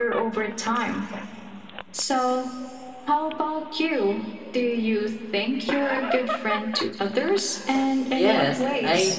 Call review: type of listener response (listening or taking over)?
taking over